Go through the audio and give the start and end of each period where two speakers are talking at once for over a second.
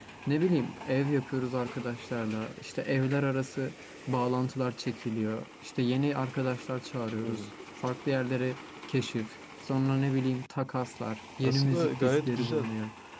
11.4-12.7

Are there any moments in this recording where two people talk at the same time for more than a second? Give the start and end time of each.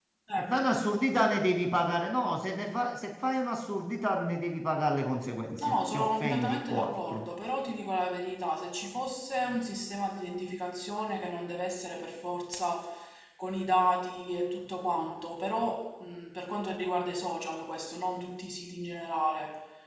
5.6-7.2

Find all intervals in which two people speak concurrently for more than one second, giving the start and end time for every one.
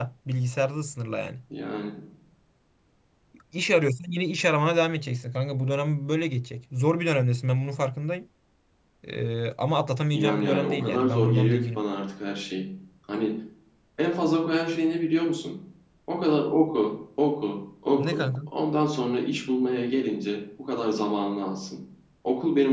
10.1-11.8

